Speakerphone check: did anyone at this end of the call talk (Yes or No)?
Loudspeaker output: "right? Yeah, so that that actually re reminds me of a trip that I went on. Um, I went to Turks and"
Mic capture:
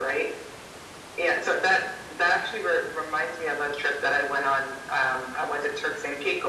No